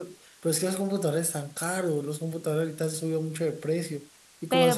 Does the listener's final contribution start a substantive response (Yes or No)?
No